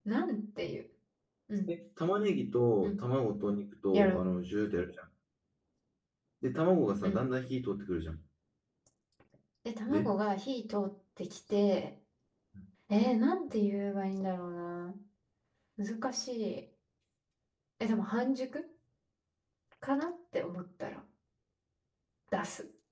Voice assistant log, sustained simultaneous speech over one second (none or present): none